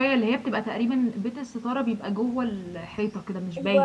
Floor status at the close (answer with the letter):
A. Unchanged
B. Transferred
B